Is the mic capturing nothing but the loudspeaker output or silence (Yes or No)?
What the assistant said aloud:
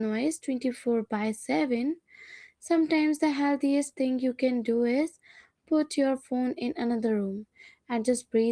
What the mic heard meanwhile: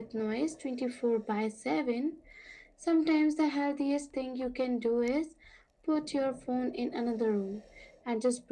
Yes